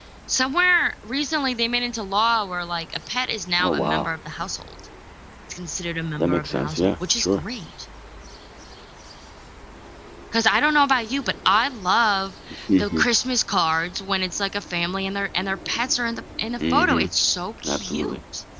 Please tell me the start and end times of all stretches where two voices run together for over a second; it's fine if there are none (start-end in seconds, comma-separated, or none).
6.2-7.4